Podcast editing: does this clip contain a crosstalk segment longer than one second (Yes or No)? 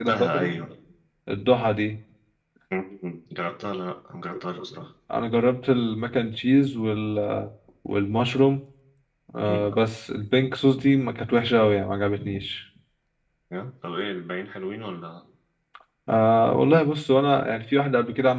No